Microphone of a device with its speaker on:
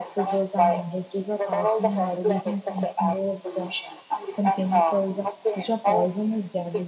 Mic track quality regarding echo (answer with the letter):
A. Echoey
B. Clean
A